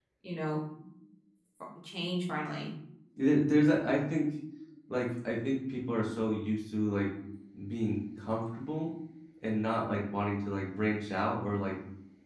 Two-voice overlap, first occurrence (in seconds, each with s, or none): none